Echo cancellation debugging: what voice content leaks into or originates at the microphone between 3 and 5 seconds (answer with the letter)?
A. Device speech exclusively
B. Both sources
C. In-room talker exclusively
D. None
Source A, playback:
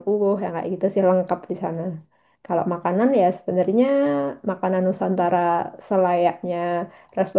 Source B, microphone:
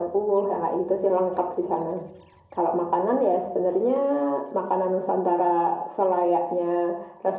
A